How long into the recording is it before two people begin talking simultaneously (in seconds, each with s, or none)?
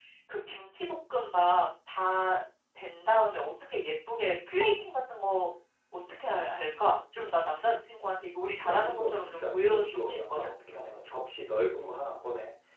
8.6 s